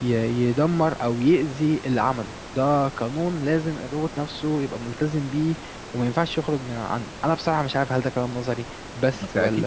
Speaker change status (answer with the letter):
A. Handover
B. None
A